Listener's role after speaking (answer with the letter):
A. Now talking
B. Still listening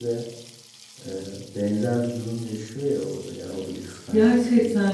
A